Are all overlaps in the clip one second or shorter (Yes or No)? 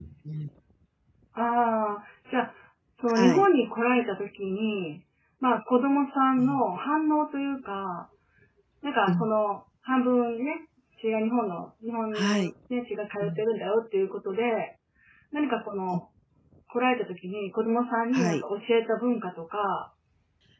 Yes